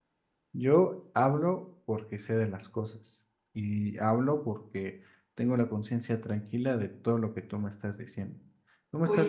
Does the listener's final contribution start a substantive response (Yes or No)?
Yes